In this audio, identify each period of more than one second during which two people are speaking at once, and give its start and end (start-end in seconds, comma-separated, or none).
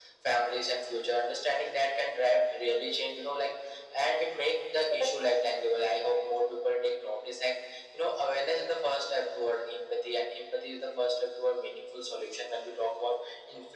none